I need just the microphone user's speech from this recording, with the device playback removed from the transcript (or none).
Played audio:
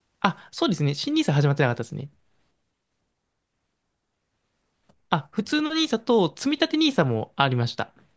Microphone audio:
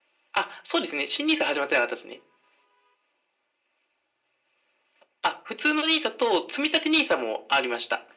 none